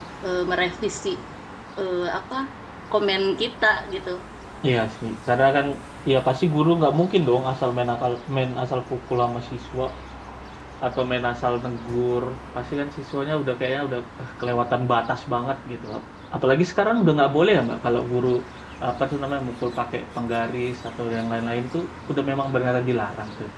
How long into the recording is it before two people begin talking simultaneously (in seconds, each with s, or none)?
none